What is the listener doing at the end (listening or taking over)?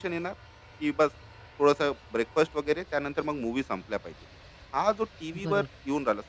listening